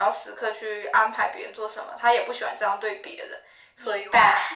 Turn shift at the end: Yes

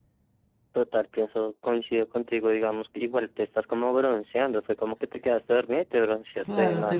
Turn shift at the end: Yes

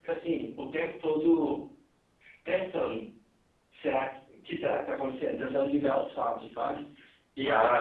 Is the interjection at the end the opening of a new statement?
Yes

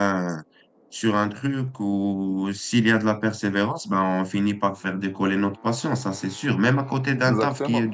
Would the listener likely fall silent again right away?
Yes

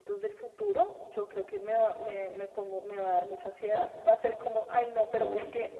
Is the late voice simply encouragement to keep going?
Yes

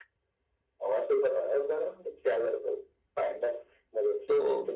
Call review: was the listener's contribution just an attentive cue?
No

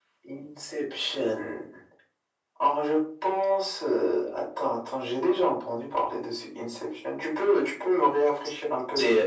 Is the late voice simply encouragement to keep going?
No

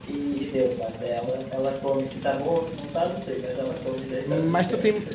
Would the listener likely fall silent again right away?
No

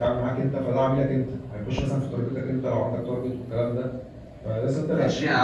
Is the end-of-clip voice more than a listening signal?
Yes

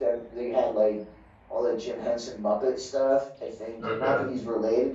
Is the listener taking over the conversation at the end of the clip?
No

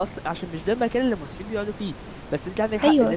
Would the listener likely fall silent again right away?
Yes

